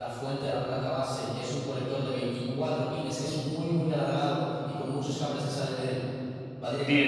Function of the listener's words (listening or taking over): taking over